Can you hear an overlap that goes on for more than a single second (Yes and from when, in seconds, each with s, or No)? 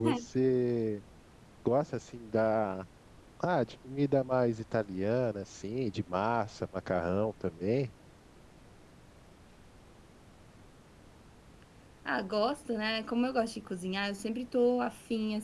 No